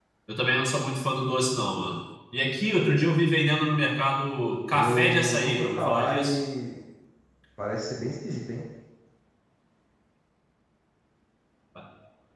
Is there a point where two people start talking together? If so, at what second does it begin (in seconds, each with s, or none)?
4.7 s